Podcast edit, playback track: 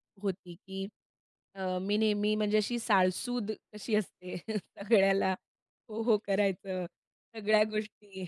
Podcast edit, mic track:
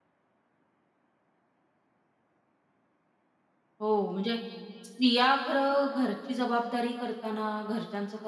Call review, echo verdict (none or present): none